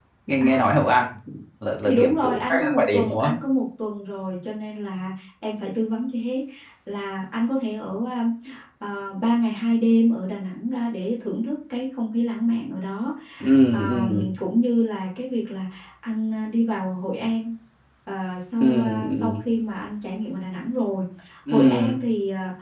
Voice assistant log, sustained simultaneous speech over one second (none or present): present